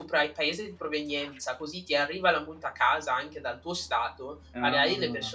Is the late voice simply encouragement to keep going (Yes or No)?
Yes